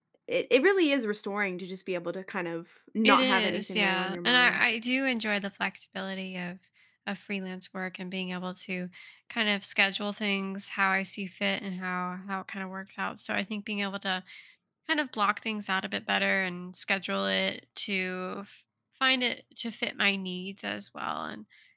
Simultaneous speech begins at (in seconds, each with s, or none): 3.0 s